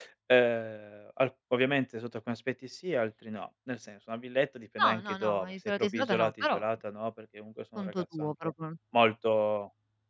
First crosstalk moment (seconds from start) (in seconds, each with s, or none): 4.8 s